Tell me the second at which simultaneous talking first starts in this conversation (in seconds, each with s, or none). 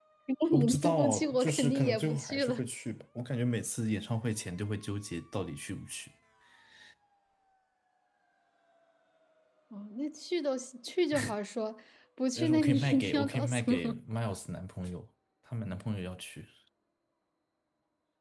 0.5 s